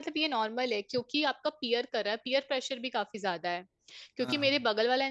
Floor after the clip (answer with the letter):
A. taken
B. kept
B